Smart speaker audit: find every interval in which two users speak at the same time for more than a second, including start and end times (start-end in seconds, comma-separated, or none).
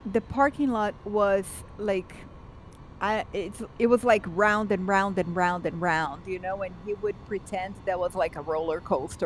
none